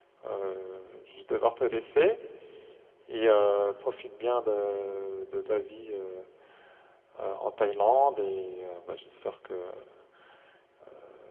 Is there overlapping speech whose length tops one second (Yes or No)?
No